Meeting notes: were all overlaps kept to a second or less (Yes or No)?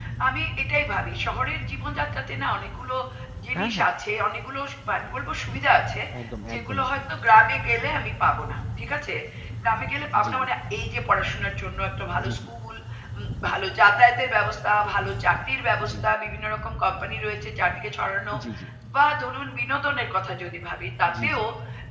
Yes